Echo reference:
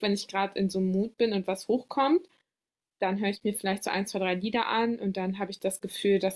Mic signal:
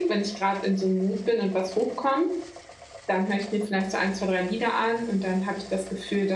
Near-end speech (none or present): none